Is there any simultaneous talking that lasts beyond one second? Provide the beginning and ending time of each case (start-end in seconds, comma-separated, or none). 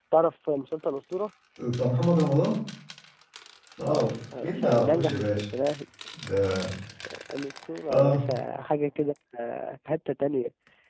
3.9-5.4